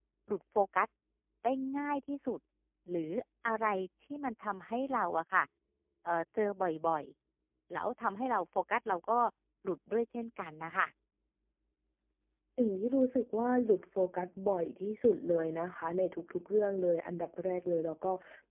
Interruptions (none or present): none